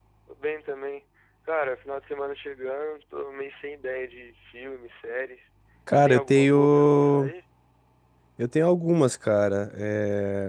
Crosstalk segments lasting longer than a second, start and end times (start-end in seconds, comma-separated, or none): 5.9-7.3